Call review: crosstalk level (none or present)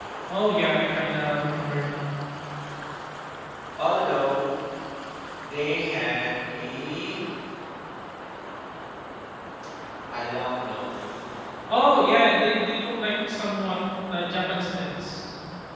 none